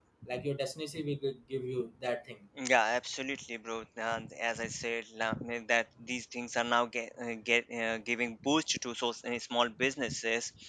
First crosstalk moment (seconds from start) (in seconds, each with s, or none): none